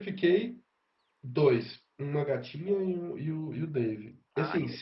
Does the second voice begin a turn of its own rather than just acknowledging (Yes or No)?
No